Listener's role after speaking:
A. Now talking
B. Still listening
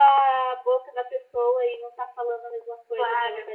A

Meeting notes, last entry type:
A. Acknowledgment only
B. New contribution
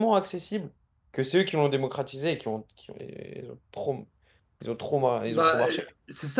B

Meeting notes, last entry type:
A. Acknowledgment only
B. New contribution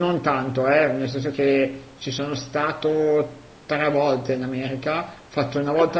A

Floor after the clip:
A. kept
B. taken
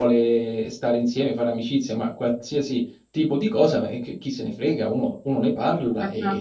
B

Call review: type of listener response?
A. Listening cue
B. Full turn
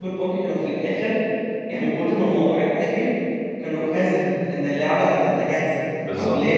A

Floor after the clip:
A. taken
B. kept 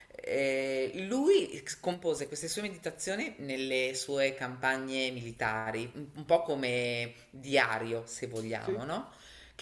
B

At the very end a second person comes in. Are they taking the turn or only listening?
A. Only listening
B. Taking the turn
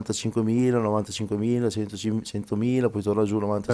B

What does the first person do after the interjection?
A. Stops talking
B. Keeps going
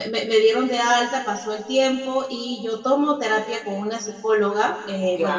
B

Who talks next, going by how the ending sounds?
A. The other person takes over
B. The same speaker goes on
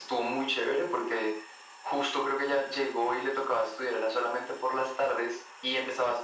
B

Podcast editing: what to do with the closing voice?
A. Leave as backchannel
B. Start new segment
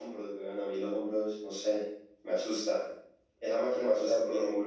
A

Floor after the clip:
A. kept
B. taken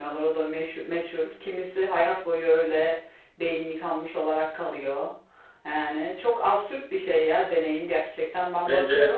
B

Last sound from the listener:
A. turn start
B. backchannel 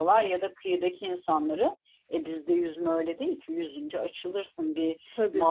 B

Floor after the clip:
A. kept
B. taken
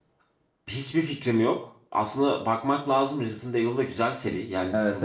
A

